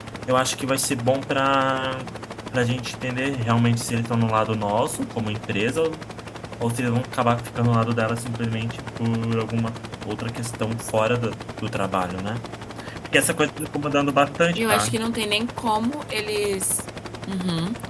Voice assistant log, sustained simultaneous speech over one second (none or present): none